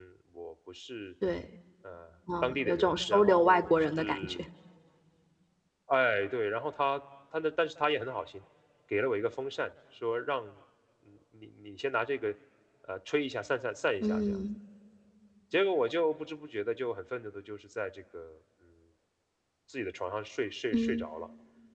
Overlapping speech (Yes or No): Yes